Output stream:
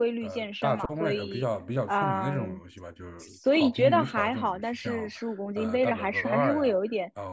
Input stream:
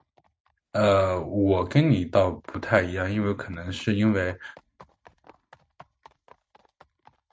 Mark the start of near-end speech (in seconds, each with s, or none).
0.7 s